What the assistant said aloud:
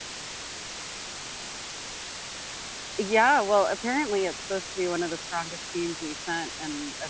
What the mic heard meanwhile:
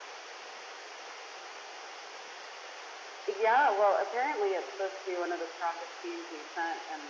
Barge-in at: none

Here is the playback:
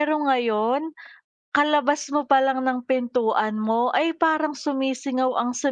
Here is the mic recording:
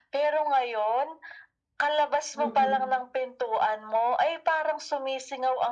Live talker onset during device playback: 2.3 s

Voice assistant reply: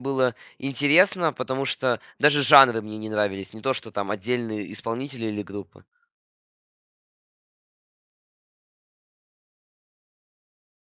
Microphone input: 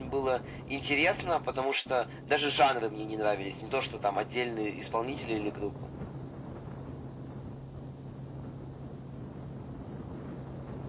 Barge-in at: none

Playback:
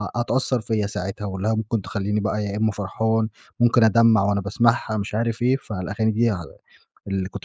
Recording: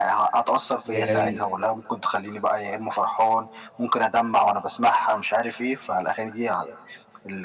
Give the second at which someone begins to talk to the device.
0.9 s

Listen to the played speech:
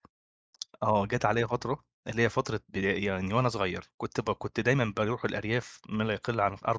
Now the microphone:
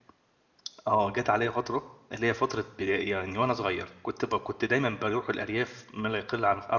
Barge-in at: none

